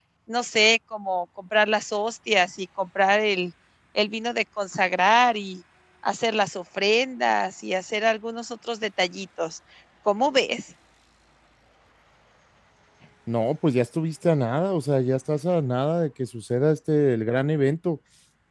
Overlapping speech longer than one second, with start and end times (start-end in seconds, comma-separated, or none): none